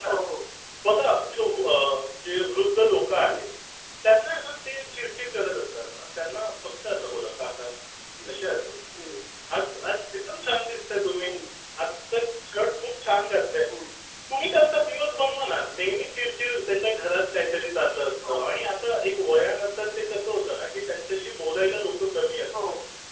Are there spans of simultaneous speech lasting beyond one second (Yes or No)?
No